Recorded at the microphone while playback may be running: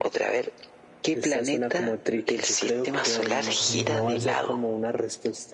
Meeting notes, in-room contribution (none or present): present